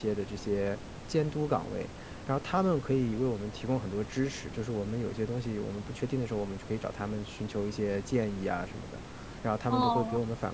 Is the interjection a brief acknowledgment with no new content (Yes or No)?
Yes